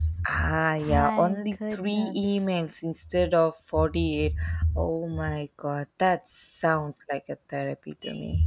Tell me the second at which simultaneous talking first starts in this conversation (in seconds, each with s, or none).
0.8 s